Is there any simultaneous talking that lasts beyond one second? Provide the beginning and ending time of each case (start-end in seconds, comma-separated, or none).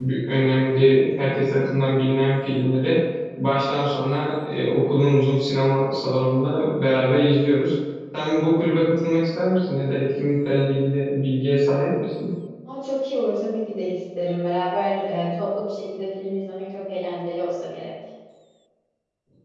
none